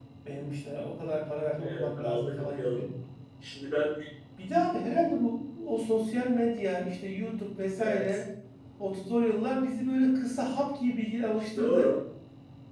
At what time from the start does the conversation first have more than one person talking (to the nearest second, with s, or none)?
2 s